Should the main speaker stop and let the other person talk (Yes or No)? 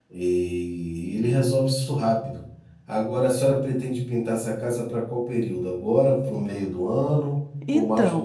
Yes